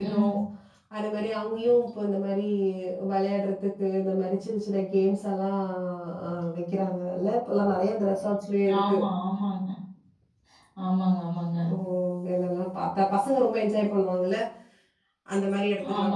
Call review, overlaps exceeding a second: none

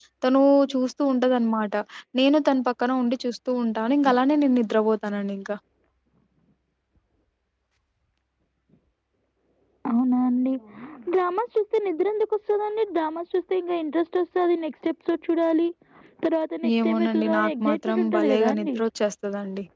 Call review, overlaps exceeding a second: present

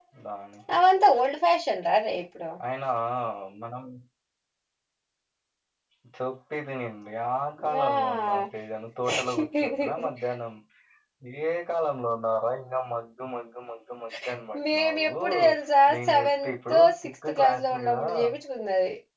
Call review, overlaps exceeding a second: present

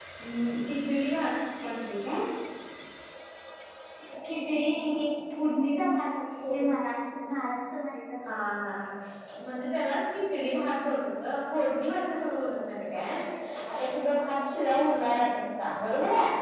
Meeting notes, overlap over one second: none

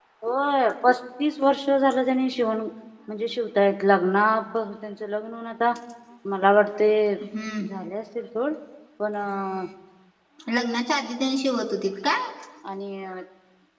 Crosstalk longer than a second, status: none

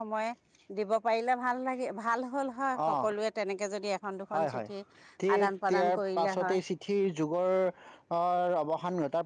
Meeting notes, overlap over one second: present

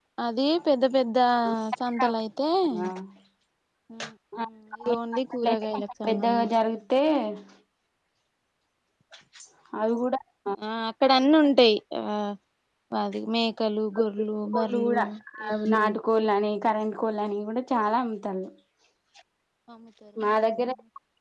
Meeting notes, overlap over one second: present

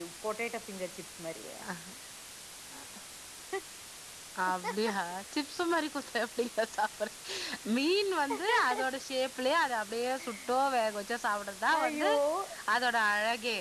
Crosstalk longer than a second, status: none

